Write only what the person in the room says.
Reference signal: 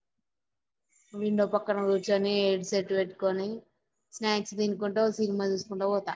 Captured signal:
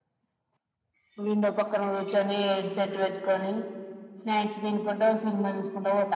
none

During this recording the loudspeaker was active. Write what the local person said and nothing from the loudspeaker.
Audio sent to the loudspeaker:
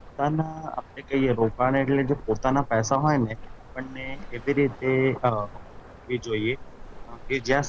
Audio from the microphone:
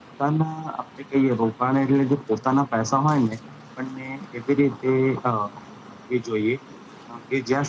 none

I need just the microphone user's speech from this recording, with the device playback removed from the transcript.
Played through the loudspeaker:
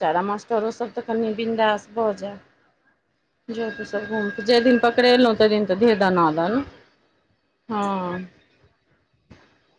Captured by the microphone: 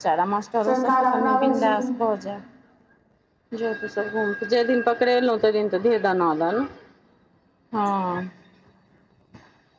सरकार अपना भइर सु

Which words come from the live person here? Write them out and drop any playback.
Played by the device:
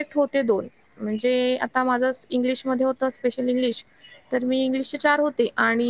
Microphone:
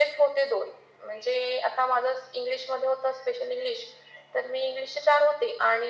none

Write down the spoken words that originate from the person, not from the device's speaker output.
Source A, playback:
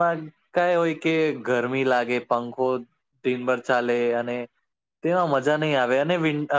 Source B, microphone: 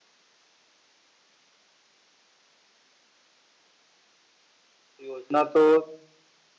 યોજના તો

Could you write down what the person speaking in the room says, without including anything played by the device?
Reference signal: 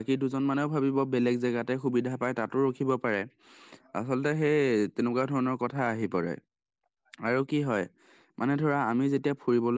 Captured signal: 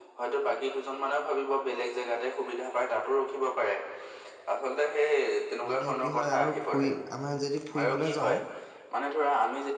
মানে কি হয় আৰু ফুৰি আমাৰ যদি ফুৰিবলৈ যাওঁ,

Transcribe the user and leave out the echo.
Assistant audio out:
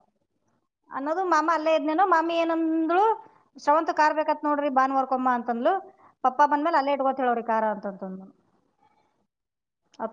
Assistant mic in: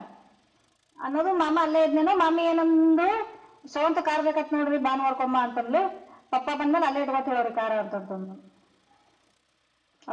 none

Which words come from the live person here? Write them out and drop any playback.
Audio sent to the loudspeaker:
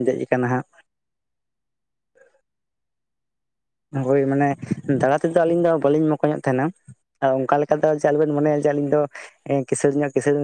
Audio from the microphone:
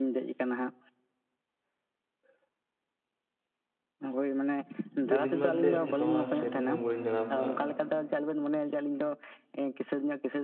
ᱟᱹᱞᱤᱧ ᱢᱟ ᱮᱛᱮᱜ ᱚᱝᱠᱟ ᱢᱟ ᱥᱮᱨᱚᱠᱚᱢᱟ ᱵᱟᱹᱞᱤᱧ ᱫᱬᱟᱣ ᱠᱟᱜ᱾

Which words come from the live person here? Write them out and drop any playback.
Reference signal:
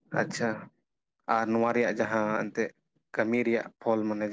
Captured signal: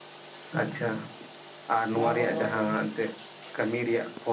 ᱱᱚᱣᱟ ᱠᱚᱫᱚ

